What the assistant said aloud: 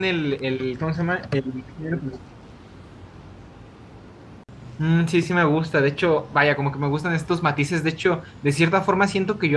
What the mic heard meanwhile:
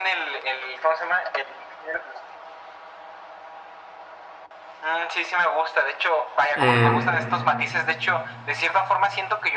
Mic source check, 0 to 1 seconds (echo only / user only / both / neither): echo only